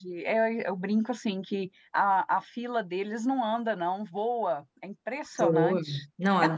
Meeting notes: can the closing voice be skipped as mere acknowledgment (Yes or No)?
No